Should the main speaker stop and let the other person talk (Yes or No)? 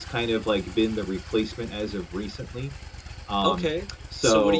Yes